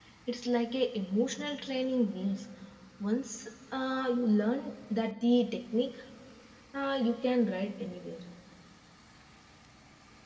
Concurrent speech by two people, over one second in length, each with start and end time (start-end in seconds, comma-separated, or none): none